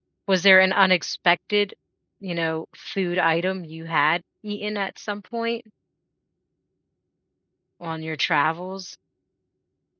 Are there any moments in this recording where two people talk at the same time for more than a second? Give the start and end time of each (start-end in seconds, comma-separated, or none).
none